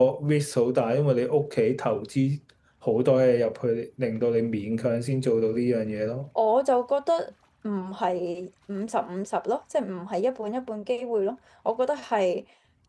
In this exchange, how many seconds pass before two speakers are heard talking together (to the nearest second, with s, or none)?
none